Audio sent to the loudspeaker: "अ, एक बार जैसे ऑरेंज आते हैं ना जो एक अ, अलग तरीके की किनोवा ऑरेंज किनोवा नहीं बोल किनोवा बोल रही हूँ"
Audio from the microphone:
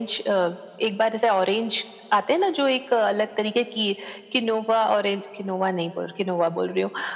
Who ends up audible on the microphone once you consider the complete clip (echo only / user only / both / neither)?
echo only